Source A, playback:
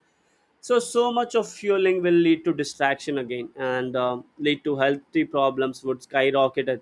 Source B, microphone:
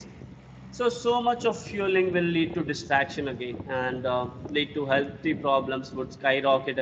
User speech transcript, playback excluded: none

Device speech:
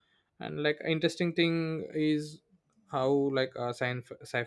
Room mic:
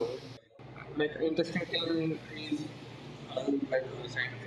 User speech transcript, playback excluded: none

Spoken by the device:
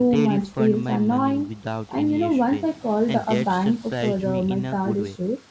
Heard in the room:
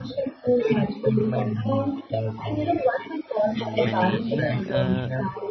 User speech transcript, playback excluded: managing uh,

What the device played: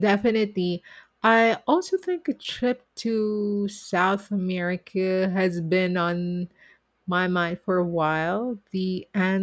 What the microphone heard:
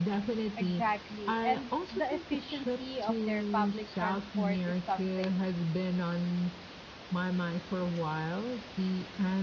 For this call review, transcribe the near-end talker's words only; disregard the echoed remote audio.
Exactly. And the efficiency of their public transport is something

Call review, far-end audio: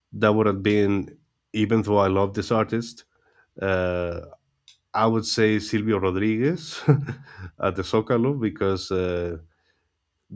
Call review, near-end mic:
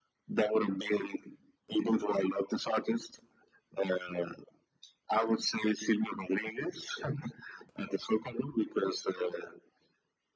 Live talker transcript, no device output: none

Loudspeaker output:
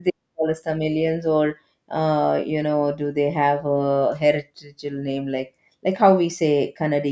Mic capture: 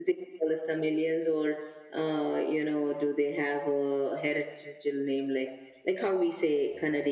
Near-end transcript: none

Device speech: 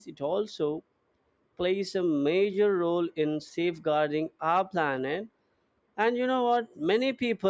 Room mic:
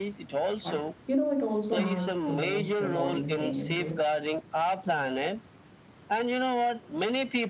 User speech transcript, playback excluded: but you know it also has the most rewarding thing into it

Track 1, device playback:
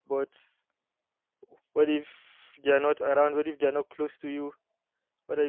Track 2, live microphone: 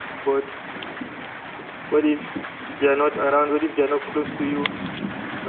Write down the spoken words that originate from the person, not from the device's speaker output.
none

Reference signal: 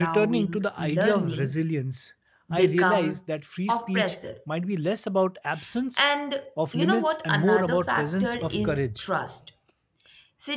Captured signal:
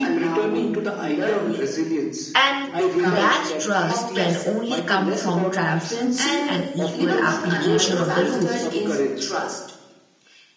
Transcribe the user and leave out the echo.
And that trust can only come from transparency and equal application of the rules.

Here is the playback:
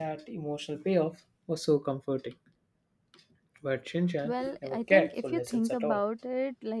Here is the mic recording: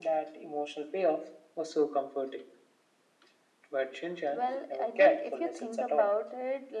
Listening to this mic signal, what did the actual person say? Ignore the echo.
none

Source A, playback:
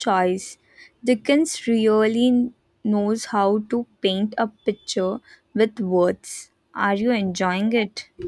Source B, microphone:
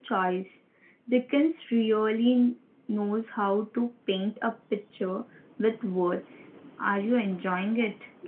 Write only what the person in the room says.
none

